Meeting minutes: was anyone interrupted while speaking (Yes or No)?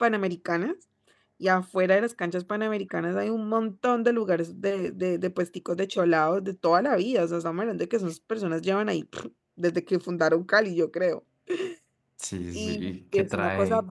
Yes